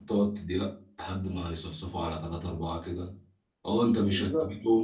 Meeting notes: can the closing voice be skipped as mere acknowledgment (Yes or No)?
Yes